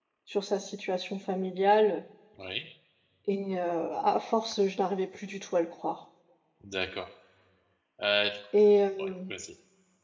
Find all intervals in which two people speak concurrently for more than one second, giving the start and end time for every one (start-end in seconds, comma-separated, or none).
none